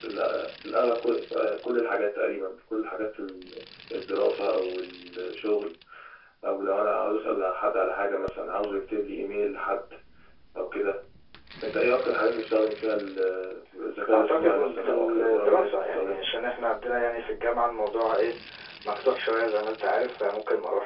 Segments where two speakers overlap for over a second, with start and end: 14.1-16.2

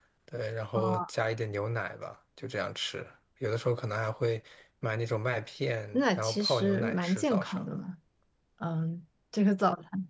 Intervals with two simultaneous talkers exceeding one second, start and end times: 5.9-7.7

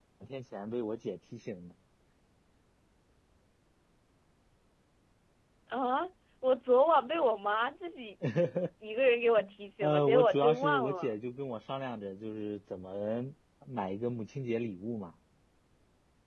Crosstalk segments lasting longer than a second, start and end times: 9.8-11.1

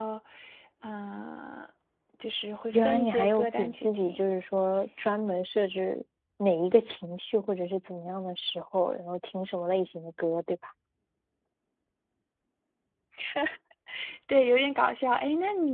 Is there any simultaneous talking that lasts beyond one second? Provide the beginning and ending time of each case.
2.7-4.2

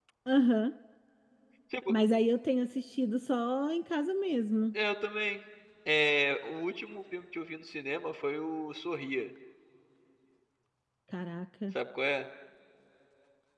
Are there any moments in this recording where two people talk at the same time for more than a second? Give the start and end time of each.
none

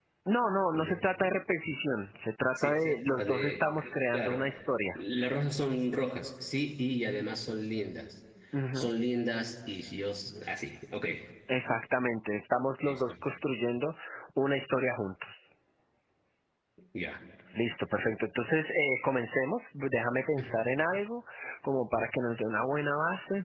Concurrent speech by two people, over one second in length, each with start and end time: 2.5-4.4

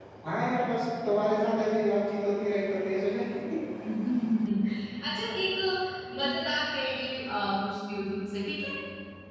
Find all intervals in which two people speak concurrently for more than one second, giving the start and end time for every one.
none

